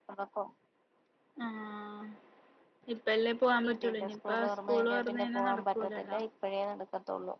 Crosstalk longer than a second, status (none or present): present